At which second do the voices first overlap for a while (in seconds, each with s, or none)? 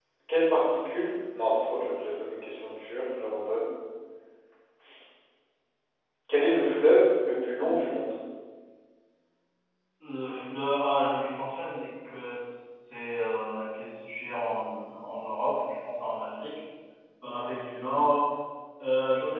none